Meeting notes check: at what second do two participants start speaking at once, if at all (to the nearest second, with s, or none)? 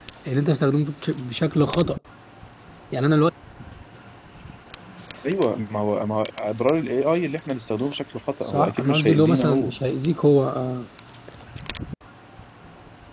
8 s